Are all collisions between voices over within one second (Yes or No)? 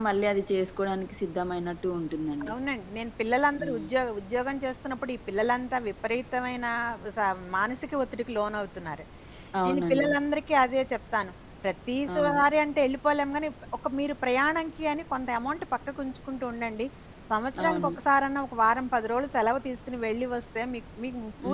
Yes